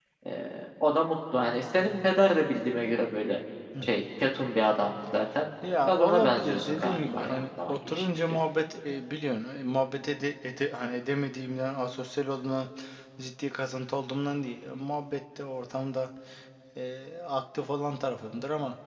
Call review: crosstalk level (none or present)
present